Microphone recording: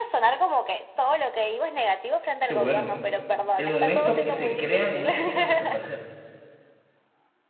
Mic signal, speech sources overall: both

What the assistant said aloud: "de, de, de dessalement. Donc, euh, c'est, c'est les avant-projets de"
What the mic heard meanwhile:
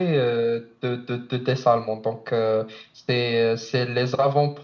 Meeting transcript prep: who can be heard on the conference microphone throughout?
echo only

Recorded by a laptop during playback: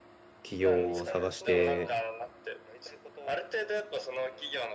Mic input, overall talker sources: both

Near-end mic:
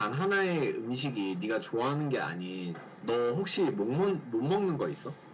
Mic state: echo only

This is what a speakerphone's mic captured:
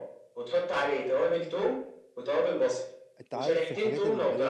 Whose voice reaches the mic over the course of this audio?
both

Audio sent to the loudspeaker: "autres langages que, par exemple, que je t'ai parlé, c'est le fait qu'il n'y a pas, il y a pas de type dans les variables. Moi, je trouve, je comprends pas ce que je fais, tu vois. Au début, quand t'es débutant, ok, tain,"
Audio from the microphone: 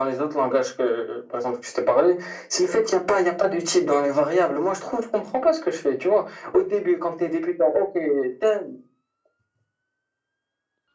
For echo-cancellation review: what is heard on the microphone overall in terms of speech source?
echo only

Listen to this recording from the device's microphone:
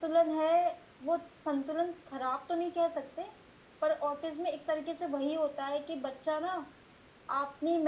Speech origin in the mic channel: user only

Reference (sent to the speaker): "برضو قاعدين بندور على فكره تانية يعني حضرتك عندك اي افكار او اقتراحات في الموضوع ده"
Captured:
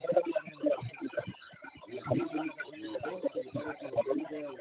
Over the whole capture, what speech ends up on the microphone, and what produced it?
both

